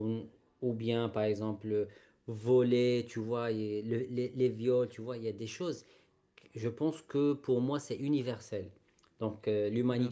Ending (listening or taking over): listening